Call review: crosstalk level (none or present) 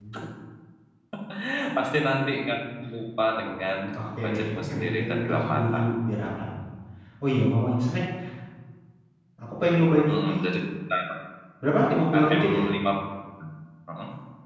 present